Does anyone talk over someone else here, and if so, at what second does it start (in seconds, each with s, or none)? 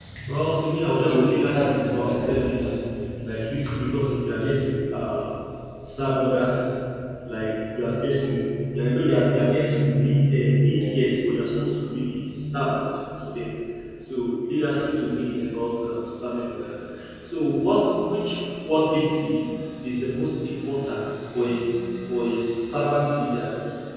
1.0 s